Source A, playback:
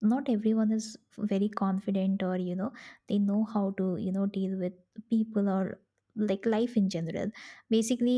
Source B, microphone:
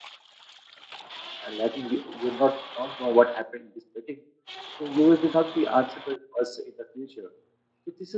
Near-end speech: present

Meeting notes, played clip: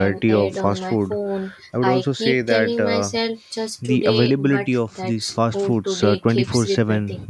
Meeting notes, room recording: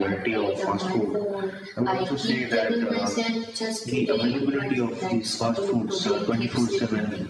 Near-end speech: none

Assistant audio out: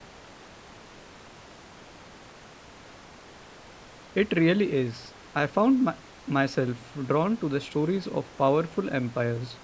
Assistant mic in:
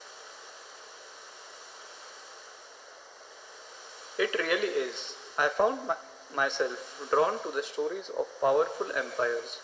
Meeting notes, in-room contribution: none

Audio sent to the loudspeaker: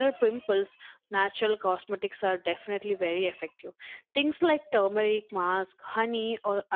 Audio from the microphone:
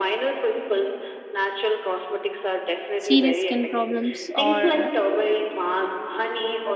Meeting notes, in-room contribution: present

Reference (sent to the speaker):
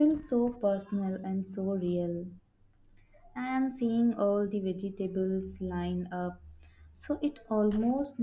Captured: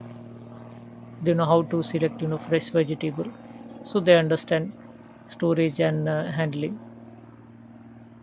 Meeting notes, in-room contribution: present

